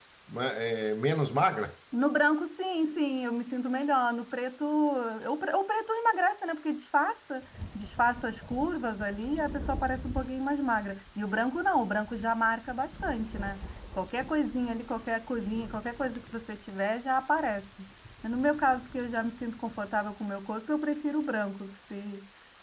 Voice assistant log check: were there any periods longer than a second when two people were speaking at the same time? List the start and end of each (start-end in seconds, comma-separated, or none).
none